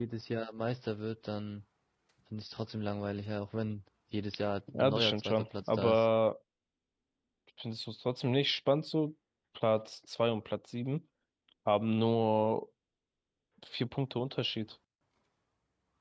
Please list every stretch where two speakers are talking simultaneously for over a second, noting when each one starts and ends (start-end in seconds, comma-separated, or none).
4.7-6.1